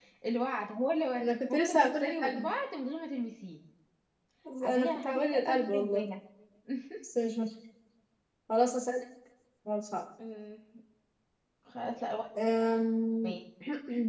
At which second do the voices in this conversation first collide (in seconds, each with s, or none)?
1.2 s